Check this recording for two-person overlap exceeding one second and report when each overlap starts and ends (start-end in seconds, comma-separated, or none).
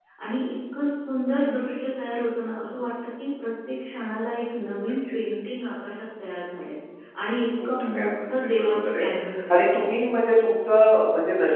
7.6-9.1